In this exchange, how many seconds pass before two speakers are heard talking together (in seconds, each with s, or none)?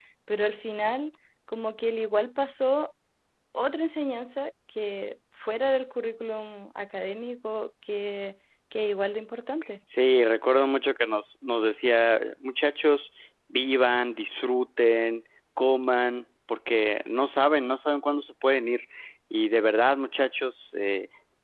none